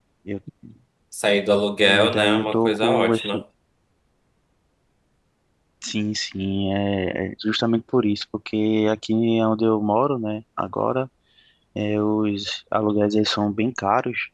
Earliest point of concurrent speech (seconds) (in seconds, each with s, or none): 1.8 s